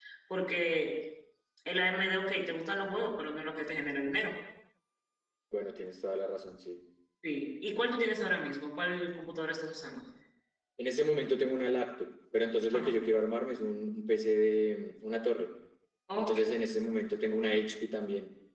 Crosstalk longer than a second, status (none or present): none